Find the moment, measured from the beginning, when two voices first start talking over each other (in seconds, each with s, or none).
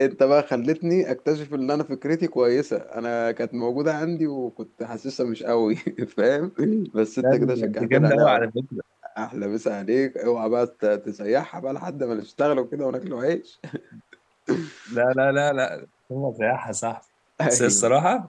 7.2 s